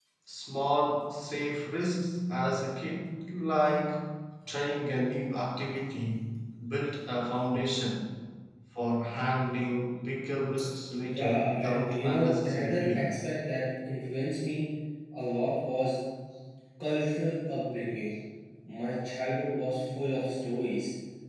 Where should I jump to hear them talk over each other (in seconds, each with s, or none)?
11.1 s